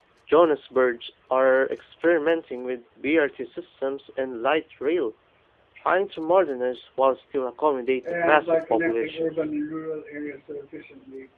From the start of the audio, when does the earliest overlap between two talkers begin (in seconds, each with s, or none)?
8.0 s